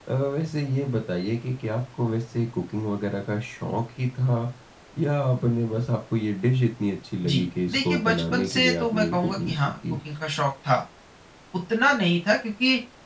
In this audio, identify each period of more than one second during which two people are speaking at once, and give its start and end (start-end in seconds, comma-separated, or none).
7.3-9.7